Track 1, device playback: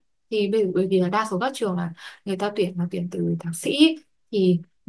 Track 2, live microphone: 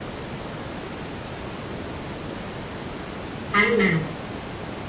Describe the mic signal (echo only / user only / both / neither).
user only